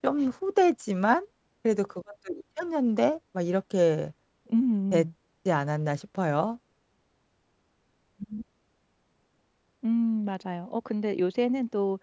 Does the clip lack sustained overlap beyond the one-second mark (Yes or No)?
Yes